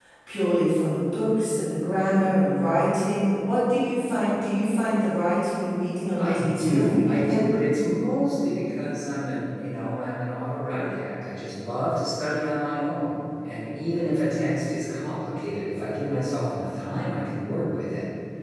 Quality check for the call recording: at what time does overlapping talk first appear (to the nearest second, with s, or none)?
6 s